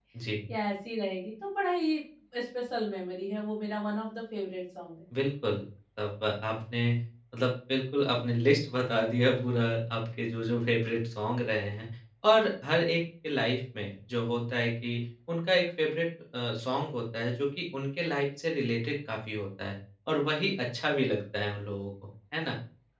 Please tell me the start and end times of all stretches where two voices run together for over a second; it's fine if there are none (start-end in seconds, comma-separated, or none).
none